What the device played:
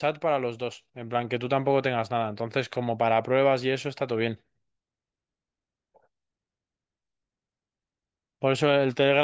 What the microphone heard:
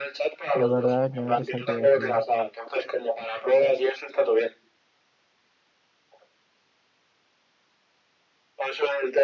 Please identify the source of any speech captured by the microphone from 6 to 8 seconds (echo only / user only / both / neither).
neither